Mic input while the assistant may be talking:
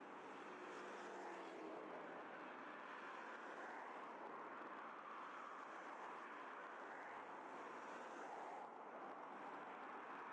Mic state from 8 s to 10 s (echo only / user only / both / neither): neither